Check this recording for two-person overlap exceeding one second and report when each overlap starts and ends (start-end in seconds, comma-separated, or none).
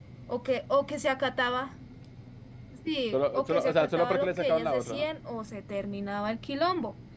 3.1-5.1